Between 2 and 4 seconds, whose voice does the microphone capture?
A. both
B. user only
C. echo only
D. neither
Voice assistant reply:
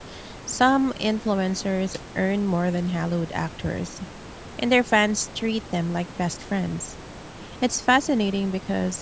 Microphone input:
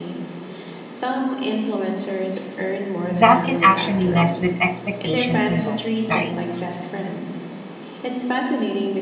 A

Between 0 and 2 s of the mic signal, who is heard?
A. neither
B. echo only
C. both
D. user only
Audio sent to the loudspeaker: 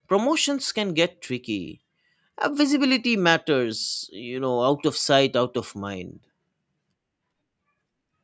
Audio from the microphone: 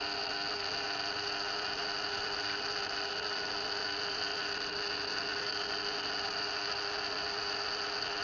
A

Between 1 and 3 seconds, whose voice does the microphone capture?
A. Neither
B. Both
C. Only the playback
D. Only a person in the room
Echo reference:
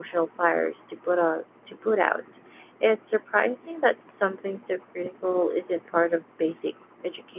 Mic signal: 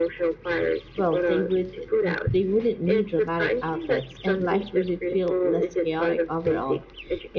B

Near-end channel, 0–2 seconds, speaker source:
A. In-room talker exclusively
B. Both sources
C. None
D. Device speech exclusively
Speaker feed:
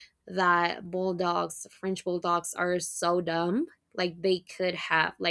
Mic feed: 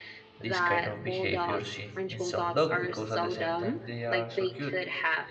B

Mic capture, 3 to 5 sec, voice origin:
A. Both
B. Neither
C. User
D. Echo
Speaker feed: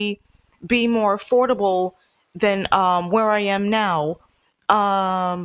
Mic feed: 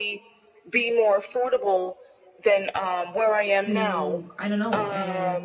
A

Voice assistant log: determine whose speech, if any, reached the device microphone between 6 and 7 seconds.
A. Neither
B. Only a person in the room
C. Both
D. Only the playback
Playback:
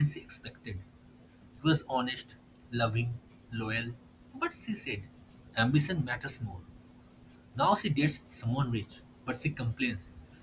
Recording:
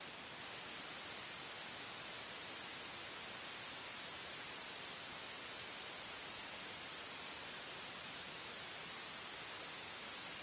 A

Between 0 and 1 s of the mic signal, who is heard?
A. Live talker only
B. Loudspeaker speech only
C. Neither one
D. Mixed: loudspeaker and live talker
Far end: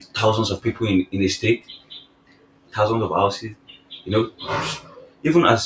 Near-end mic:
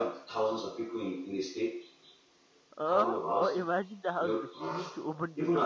B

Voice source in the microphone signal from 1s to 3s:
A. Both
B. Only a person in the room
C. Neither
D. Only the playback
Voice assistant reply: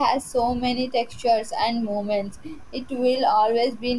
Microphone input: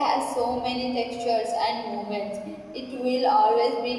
D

